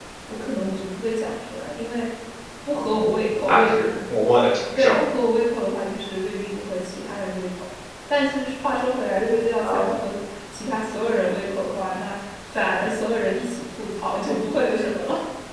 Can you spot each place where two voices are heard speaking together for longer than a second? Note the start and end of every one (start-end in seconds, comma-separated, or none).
none